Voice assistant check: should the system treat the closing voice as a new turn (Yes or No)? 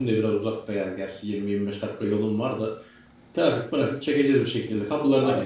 Yes